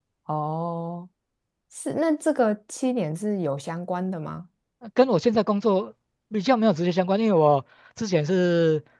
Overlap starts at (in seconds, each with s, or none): none